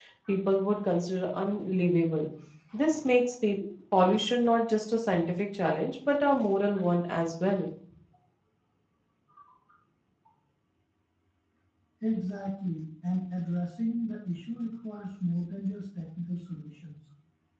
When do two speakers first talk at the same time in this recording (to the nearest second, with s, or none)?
none